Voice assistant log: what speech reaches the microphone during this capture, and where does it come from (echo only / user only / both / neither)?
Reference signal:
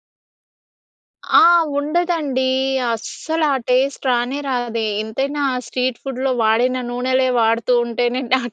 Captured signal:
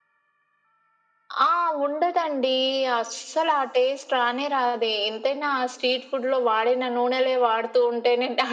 echo only